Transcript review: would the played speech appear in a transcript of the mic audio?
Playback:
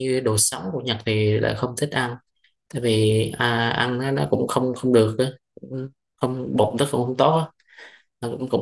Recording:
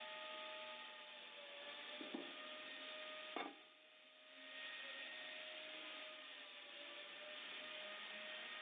No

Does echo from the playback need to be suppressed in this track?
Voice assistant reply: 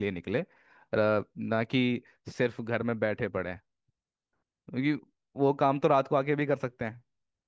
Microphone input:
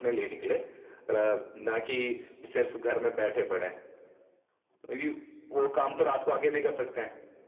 Yes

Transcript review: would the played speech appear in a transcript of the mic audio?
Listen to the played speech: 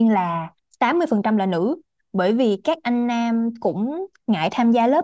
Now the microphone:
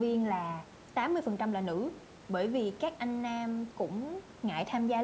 Yes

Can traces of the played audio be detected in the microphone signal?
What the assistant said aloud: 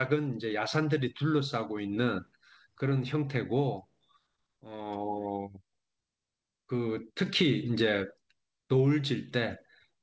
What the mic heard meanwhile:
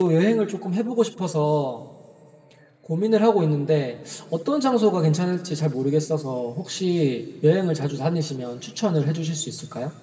No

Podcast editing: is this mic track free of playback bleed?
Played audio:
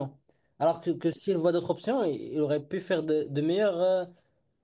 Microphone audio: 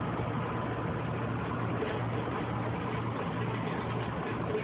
Yes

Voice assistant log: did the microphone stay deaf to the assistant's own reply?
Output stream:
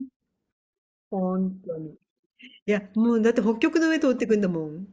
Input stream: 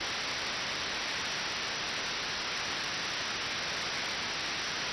Yes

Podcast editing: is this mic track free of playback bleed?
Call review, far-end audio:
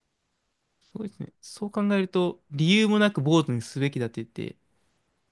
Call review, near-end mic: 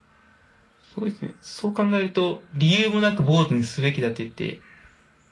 No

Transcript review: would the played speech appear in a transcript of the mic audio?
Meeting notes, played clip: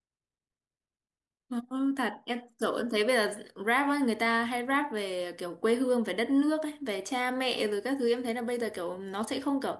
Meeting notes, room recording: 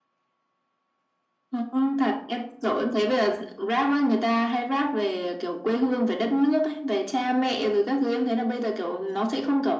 Yes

